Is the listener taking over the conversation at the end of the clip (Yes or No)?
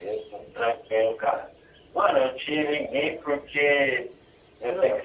No